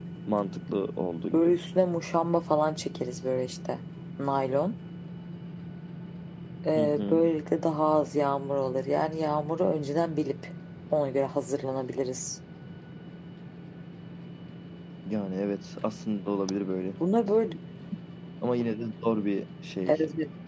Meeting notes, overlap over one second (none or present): none